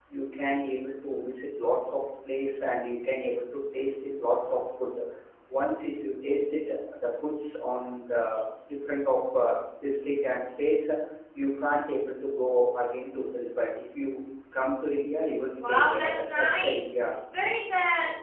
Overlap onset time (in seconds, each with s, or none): 15.6 s